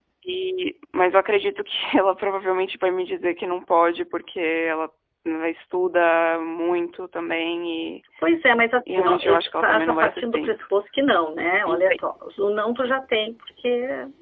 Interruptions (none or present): present